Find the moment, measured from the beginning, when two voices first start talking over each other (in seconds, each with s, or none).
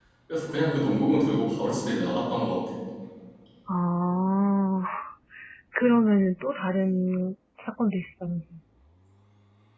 none